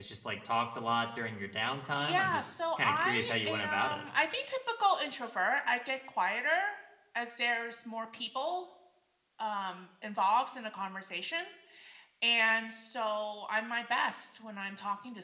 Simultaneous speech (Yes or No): Yes